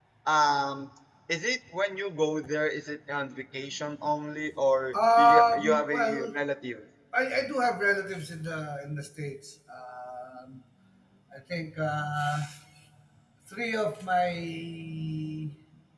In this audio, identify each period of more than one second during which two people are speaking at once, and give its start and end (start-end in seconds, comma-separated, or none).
4.9-6.3